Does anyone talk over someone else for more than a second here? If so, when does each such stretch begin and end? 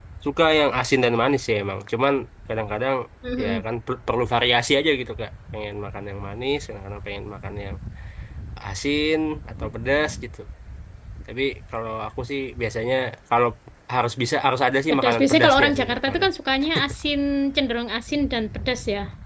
14.9-16.3

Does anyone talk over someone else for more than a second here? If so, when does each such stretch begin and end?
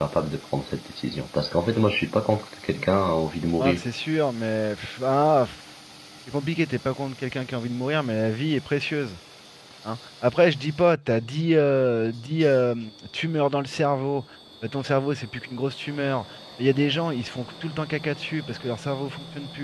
none

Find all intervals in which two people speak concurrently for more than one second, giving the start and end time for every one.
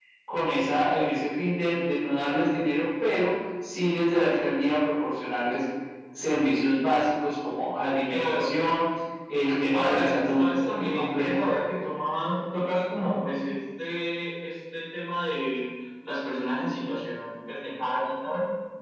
9.7-11.4

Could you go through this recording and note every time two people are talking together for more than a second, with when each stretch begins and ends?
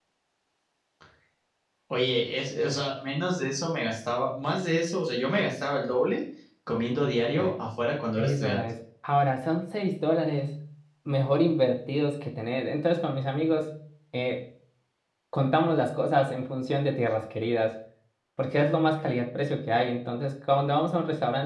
none

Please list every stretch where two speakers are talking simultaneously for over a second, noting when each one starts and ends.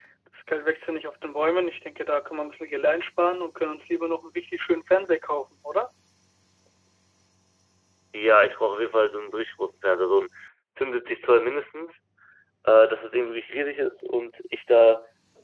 none

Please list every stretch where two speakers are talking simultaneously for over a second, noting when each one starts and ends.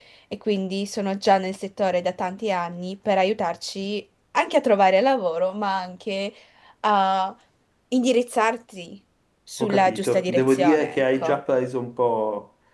9.6-11.4

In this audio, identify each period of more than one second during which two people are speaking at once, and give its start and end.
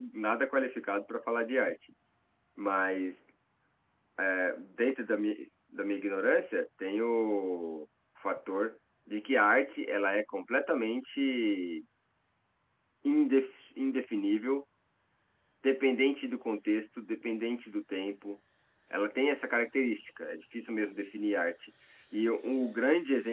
none

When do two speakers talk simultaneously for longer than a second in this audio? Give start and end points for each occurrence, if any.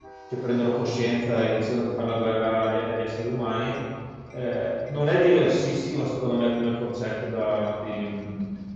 none

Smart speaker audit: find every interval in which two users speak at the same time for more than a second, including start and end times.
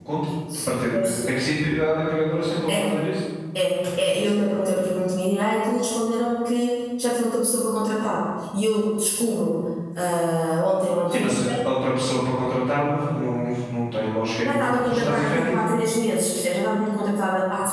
14.4-15.7

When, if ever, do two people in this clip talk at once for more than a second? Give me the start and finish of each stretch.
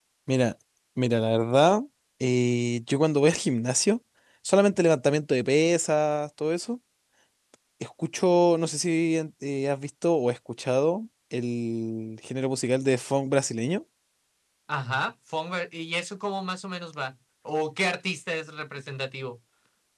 none

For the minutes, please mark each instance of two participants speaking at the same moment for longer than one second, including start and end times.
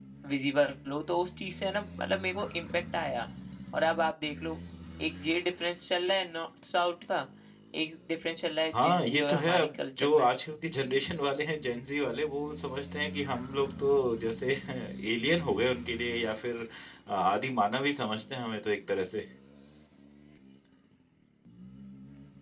8.8-10.3

